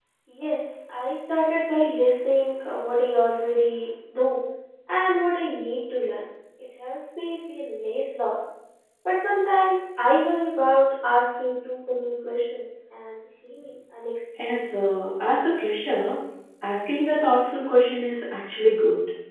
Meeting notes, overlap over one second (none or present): none